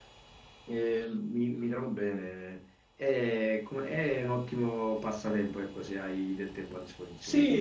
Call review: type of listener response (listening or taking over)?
taking over